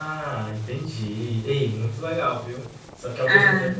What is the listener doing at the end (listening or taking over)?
listening